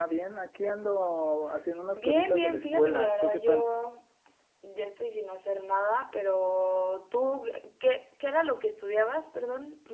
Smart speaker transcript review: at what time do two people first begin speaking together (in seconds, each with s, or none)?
1.9 s